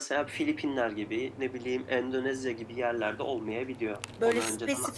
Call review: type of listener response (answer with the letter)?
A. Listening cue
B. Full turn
B